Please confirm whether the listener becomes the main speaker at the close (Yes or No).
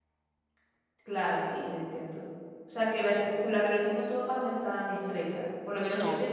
No